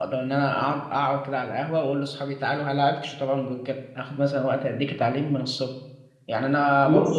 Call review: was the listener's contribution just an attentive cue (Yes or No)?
Yes